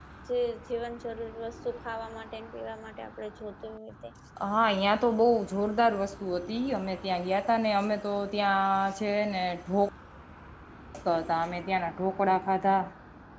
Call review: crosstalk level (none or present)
none